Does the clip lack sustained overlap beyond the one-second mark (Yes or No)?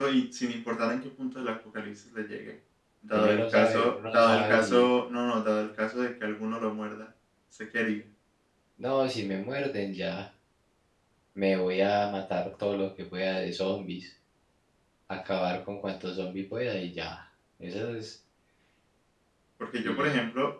No